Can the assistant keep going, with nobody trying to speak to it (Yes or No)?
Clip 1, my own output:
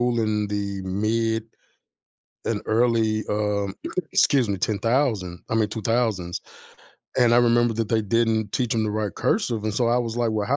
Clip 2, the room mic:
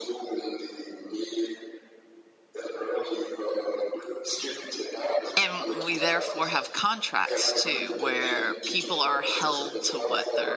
No